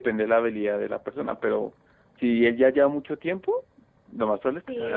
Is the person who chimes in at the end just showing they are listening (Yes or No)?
No